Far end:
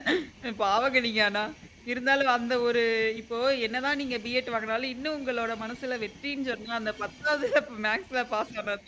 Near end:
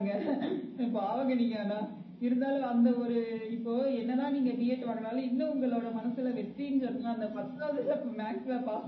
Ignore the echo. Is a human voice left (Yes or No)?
No